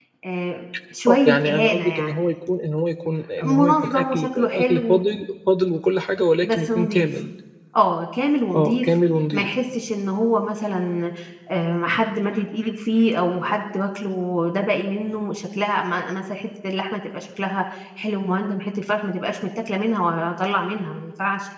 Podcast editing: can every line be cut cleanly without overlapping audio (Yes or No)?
No